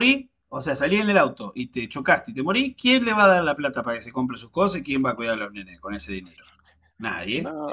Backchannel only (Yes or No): Yes